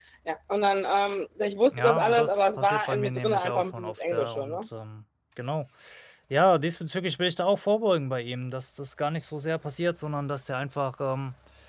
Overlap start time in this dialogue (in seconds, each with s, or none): 1.7 s